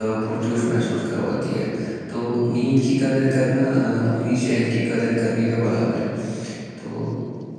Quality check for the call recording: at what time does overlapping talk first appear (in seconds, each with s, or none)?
none